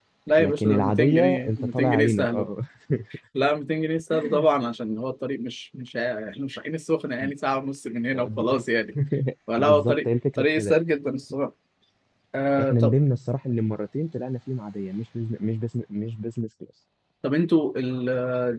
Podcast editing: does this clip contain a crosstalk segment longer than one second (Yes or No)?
Yes